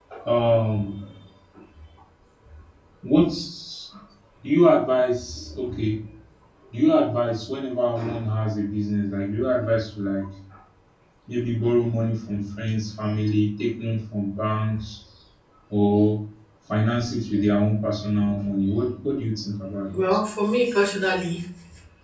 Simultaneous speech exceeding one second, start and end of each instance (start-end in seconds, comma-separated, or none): none